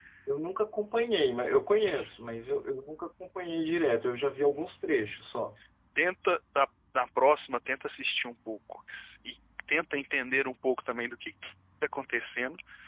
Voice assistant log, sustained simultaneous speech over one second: none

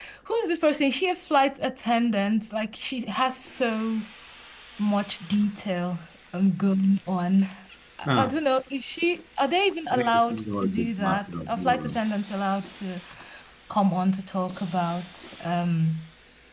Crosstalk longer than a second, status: present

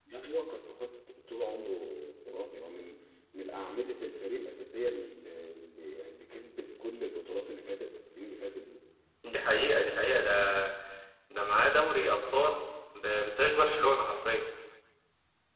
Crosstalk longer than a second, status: none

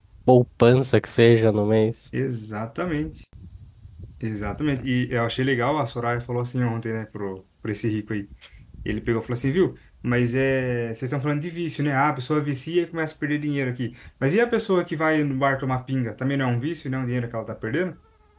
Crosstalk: none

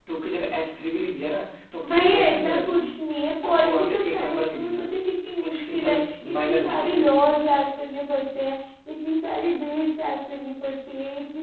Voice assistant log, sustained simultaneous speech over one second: present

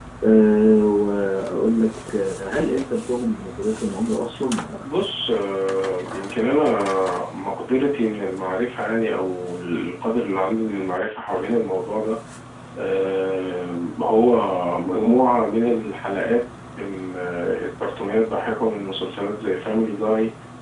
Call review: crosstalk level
none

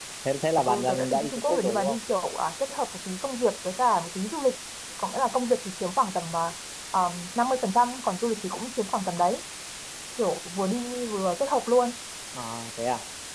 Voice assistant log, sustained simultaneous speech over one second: present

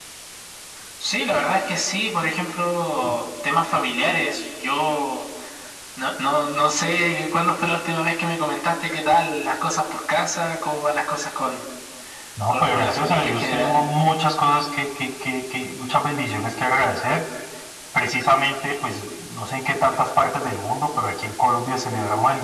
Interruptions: present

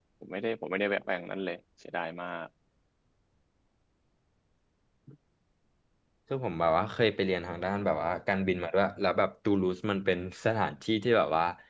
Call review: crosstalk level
none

